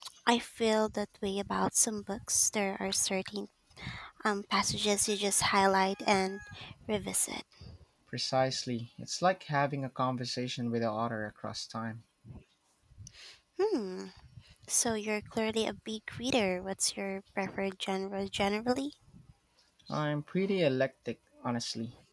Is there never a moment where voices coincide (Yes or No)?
Yes